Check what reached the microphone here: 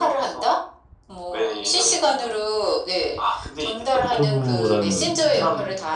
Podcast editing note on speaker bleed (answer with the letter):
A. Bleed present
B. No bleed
A